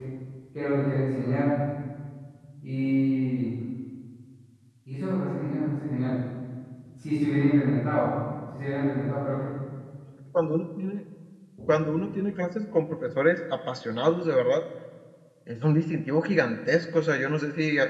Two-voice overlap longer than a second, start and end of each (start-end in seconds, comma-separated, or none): none